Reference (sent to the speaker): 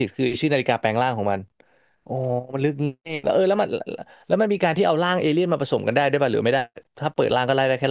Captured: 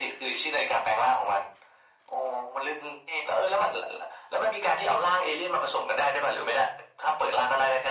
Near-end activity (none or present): none